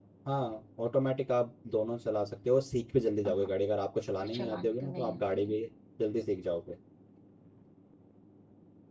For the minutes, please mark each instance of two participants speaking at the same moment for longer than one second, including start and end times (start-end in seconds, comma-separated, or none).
4.2-5.6